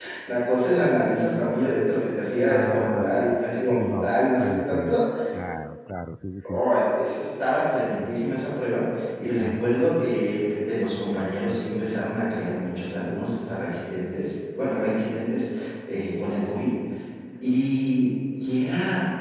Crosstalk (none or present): present